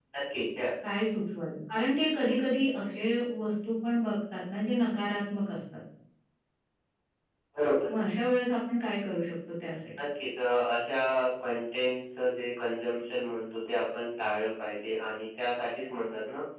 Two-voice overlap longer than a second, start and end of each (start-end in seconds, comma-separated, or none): none